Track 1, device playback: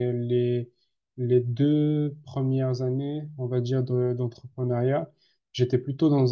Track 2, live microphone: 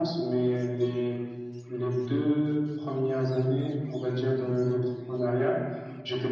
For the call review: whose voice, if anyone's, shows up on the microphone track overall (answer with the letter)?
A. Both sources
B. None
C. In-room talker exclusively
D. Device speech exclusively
D